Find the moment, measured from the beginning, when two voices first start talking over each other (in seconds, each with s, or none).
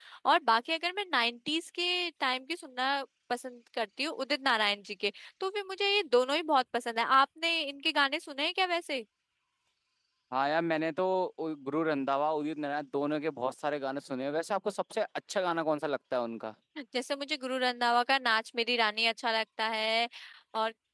none